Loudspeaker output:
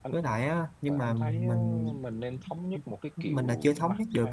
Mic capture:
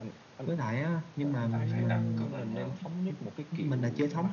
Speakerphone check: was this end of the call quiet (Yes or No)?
No